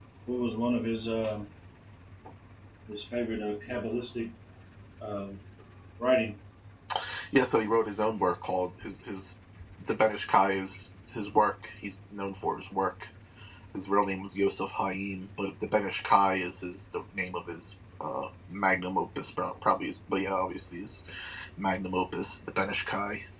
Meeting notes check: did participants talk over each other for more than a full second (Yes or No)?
No